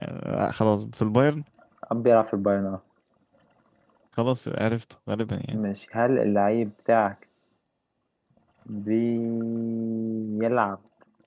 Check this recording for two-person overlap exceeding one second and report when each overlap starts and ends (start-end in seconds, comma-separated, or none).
none